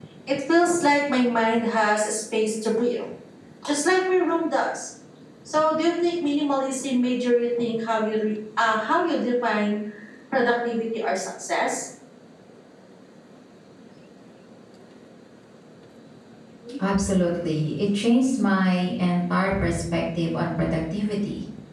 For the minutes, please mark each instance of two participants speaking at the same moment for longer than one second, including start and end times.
none

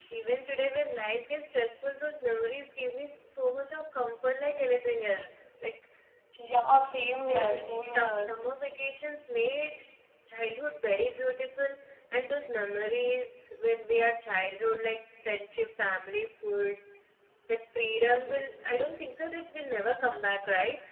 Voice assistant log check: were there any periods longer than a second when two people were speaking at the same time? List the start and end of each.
none

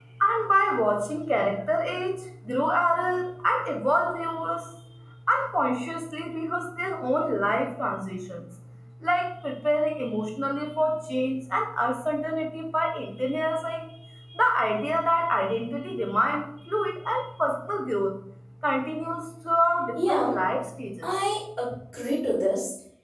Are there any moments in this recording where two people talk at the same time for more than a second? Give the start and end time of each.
none

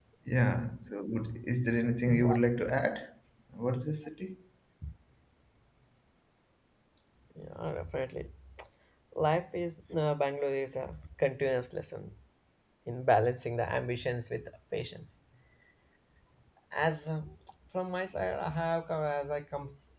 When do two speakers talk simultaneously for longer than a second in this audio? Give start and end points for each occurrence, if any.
none

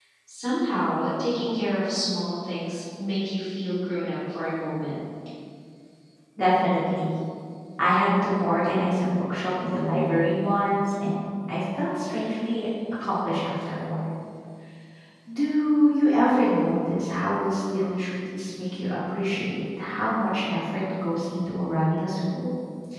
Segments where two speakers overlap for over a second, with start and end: none

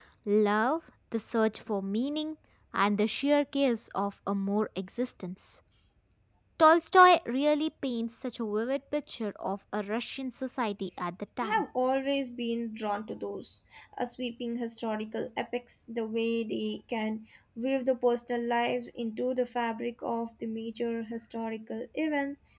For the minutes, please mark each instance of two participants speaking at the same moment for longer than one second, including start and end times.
none

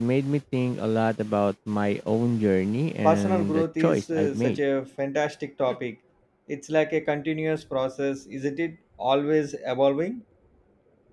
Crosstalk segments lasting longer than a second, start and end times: 3.0-4.6

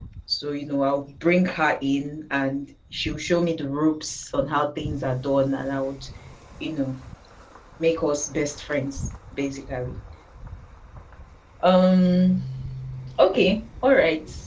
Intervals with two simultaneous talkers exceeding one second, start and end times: none

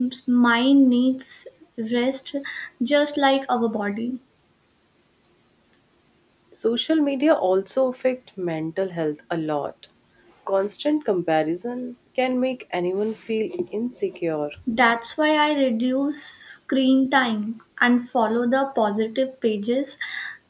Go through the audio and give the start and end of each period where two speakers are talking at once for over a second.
none

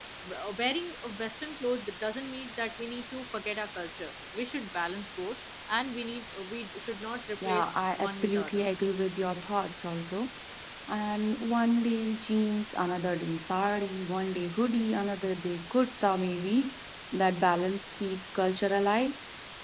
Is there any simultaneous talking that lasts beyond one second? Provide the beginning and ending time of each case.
7.5-8.7

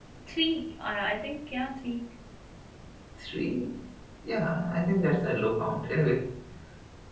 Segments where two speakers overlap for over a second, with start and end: none

